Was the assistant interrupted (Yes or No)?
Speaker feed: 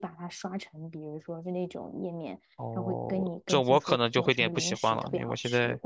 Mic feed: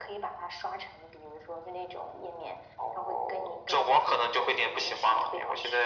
No